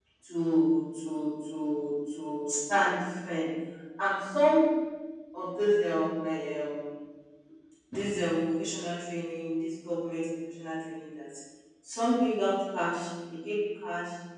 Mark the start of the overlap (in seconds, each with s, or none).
none